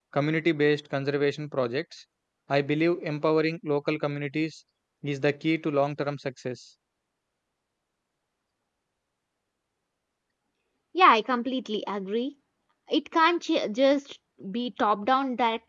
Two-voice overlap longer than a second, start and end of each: none

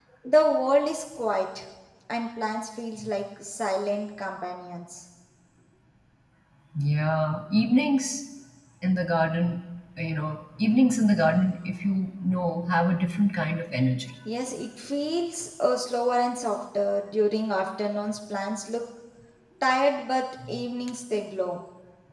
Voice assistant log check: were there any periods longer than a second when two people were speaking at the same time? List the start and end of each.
none

